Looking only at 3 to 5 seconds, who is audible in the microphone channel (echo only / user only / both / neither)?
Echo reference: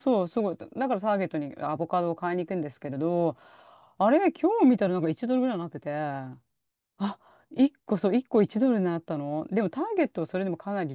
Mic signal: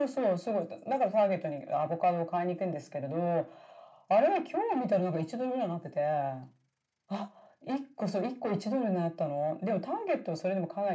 echo only